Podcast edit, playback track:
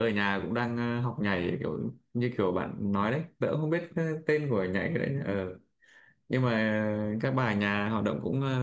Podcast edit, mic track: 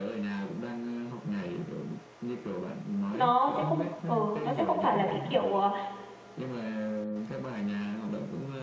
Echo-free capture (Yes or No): No